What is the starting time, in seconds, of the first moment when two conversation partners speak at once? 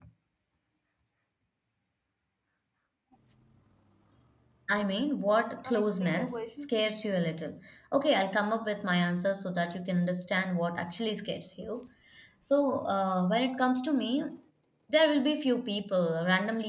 5.6 s

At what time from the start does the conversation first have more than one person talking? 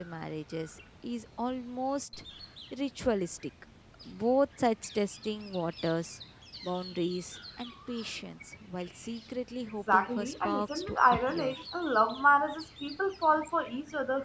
9.9 s

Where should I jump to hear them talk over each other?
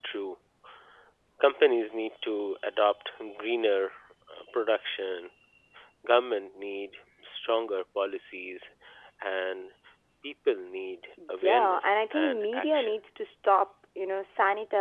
11.2 s

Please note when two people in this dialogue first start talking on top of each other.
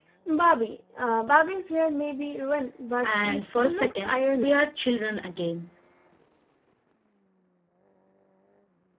3.0 s

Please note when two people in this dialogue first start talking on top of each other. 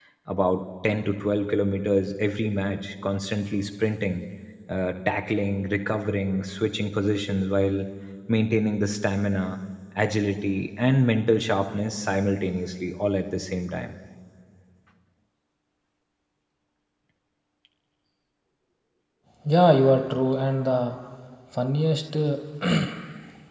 none

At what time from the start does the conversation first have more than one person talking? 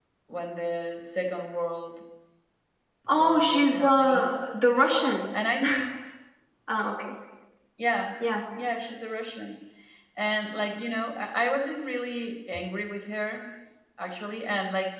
3.1 s

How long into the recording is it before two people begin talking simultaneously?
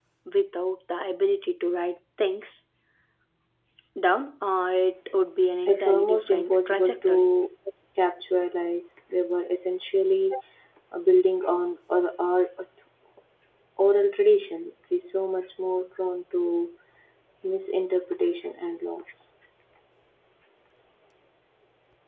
5.7 s

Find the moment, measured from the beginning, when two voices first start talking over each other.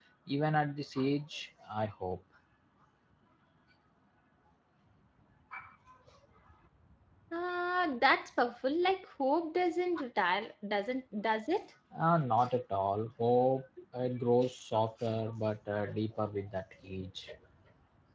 none

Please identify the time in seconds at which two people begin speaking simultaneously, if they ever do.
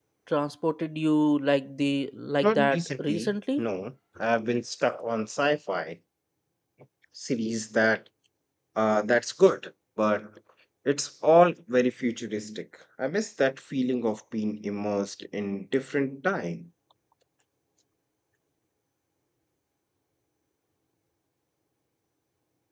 2.4 s

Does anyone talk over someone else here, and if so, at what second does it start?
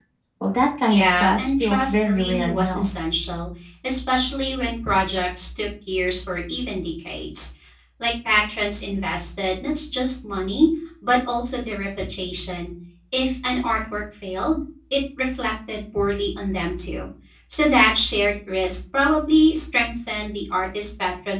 0.9 s

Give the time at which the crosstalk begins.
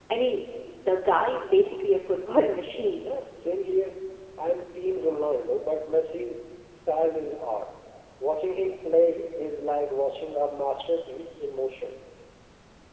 none

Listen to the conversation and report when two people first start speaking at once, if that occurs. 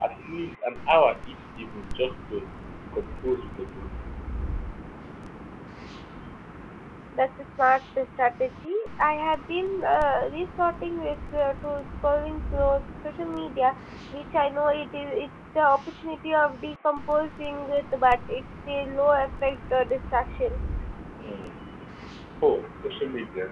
none

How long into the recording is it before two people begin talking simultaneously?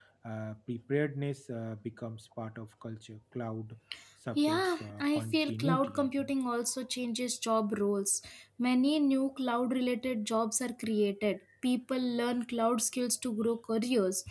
4.3 s

